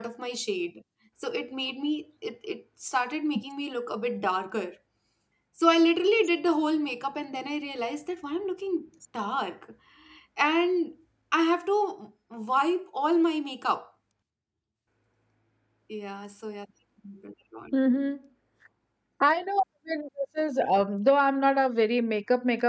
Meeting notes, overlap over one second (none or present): none